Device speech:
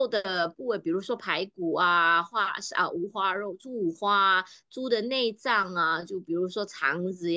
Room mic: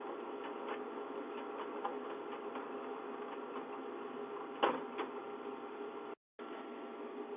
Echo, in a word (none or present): none